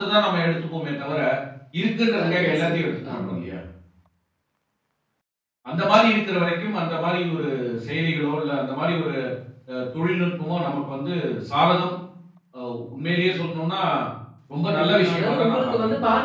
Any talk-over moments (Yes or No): Yes